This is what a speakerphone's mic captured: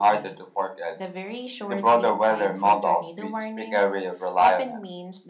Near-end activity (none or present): none